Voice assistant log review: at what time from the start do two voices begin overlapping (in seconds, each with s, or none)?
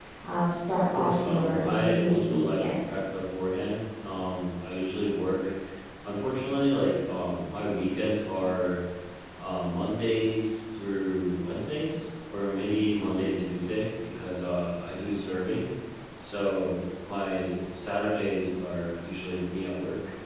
0.9 s